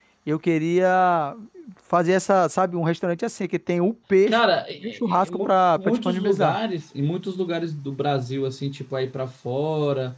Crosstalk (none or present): present